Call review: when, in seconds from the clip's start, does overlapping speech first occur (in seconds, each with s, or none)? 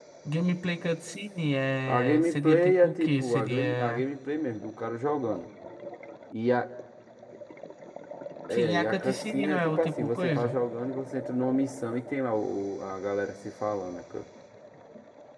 1.9 s